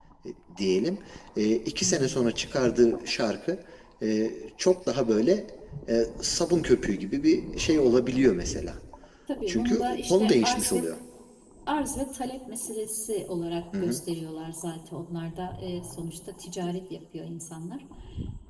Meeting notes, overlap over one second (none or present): present